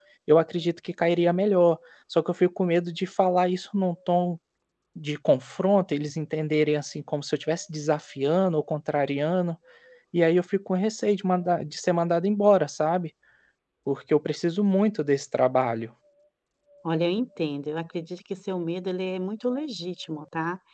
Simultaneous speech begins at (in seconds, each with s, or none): none